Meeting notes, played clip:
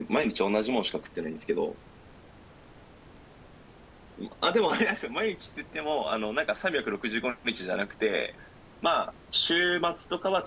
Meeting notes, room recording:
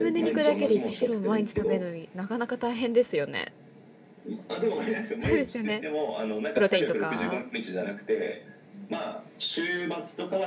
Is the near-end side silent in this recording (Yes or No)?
No